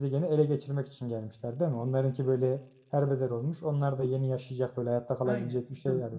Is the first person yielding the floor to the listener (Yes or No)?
Yes